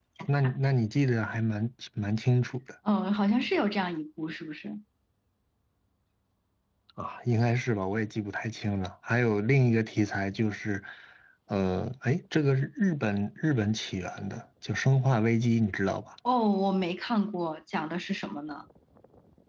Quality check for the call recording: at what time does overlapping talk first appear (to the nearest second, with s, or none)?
none